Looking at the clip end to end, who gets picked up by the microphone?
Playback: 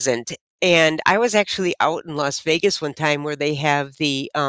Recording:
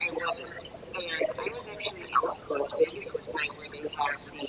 echo only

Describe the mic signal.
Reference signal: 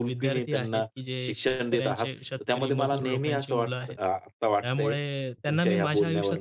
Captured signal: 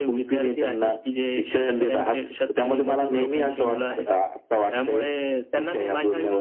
echo only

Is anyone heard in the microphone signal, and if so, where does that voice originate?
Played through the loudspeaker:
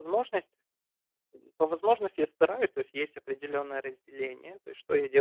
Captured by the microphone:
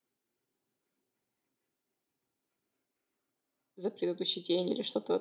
user only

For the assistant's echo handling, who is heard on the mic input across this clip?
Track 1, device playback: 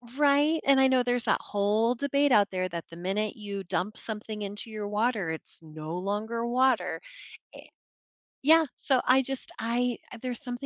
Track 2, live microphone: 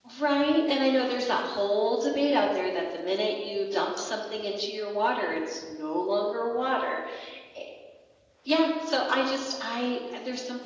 echo only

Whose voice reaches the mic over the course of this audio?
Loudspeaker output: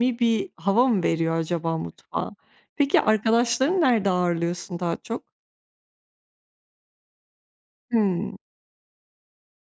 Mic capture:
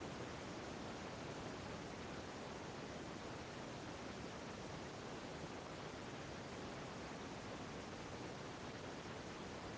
neither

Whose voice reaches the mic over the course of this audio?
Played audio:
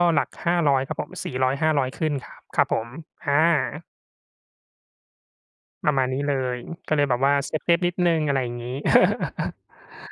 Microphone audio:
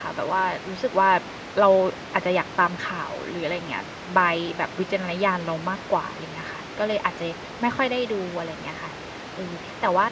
user only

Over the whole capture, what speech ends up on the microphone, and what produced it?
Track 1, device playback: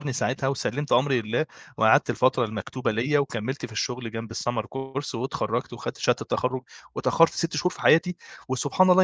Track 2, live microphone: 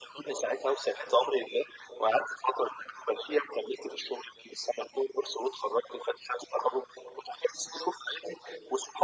echo only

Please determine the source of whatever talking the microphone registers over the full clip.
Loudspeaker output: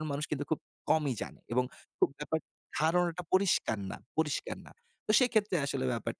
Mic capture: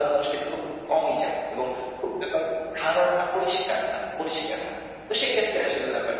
echo only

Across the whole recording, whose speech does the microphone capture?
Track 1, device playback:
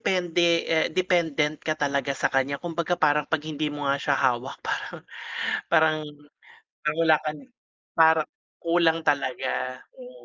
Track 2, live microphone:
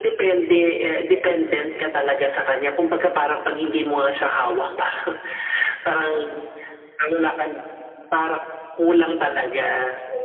echo only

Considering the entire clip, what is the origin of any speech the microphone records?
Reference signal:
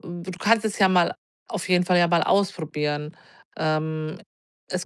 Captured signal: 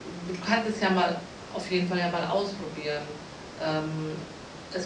echo only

